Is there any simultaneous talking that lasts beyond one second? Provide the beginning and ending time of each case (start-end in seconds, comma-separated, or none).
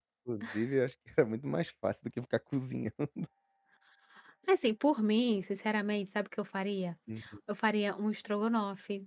none